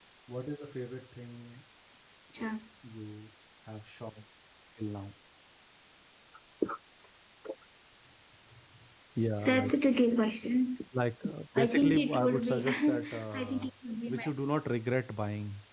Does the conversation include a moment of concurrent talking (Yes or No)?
Yes